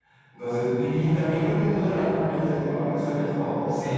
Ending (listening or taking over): taking over